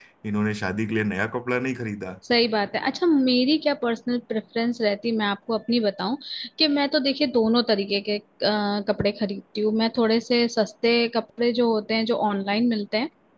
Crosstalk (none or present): none